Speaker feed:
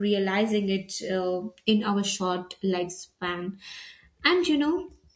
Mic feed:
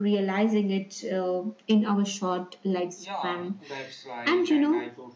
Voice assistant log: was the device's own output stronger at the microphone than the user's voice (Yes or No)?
Yes